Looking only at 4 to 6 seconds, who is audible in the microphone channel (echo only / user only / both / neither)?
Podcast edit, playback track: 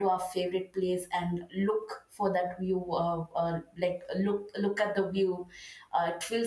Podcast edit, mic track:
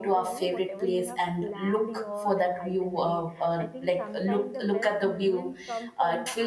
both